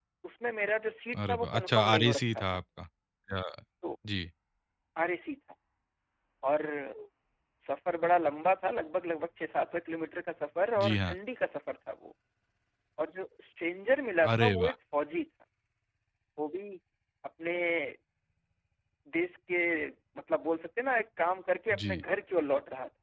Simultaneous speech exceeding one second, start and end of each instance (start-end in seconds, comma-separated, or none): 1.1-2.4